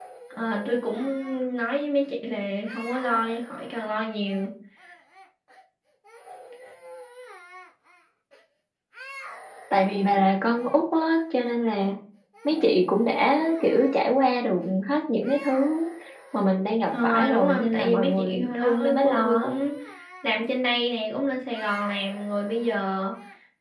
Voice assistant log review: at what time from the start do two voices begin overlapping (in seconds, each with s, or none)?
17.0 s